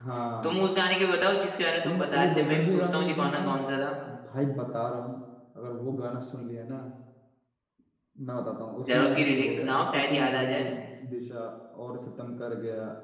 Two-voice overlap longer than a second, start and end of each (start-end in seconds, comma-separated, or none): 1.8-3.5, 8.9-10.6